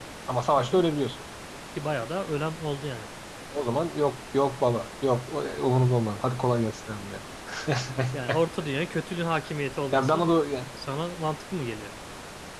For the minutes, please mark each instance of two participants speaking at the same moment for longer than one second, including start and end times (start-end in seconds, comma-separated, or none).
none